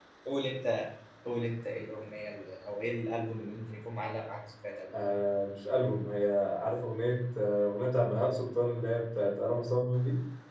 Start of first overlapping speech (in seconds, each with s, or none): none